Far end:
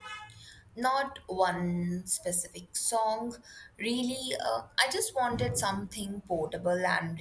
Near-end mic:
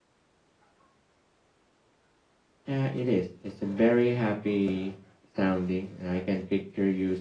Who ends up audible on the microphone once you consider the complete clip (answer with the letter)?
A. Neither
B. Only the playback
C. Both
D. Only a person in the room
D